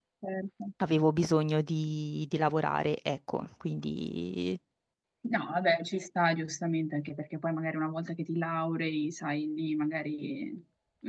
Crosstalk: none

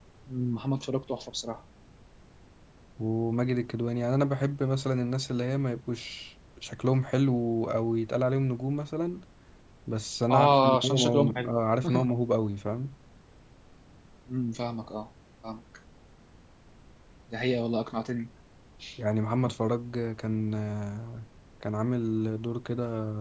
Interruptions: present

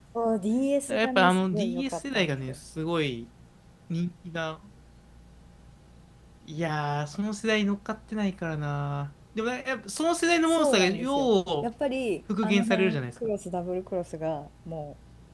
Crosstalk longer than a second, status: present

